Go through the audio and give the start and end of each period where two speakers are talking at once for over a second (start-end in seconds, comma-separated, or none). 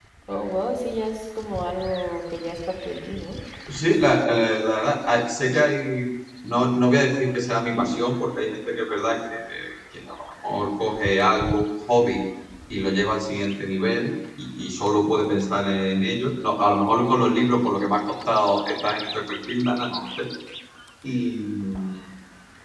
none